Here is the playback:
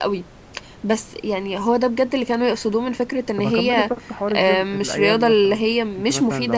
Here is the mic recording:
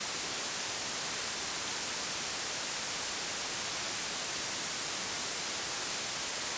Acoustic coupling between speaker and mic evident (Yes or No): No